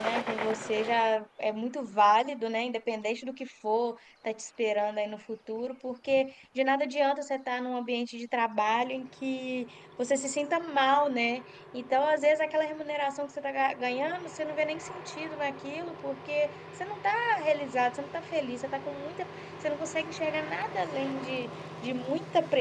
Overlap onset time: none

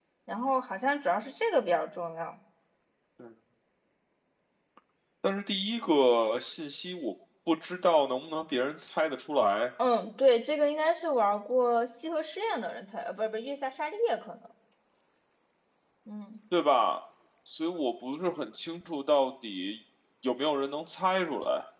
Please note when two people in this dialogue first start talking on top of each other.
none

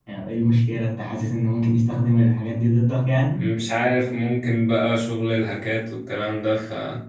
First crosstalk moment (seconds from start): none

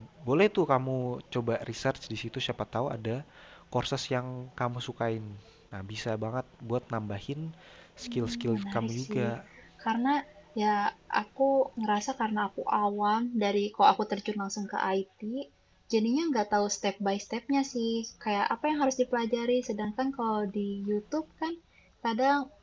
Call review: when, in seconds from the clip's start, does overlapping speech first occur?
8 s

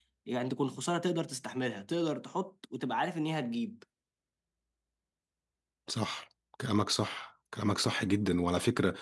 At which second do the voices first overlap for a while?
none

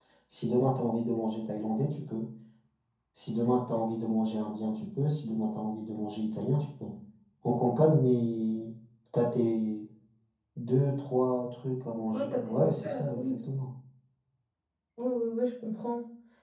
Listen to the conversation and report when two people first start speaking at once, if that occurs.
12 s

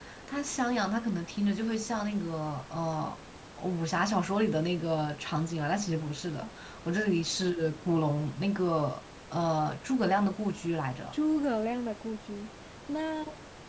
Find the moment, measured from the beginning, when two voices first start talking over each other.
none

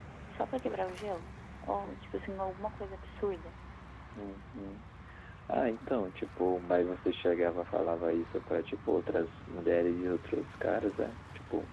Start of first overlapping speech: none

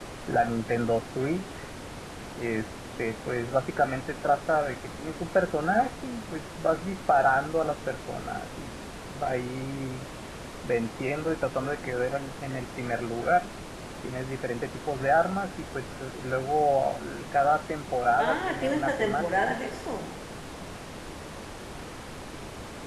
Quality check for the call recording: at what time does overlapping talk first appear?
18 s

